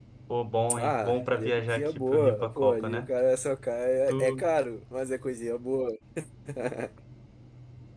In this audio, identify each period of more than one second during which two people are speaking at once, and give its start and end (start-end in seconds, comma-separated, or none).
0.7-3.1